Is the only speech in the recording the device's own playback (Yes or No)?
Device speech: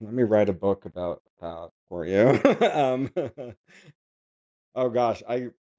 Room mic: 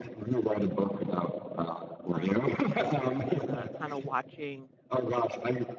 No